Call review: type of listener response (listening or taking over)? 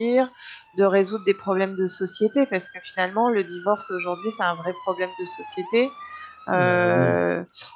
listening